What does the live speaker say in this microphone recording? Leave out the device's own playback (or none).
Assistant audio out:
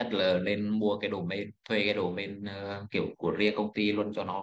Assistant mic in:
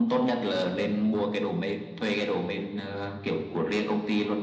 none